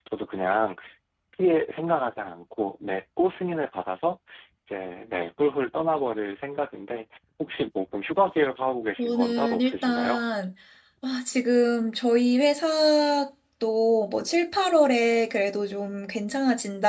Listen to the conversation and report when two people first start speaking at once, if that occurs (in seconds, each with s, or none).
9.0 s